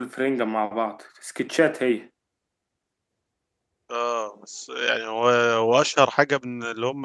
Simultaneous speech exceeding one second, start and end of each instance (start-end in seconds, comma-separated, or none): none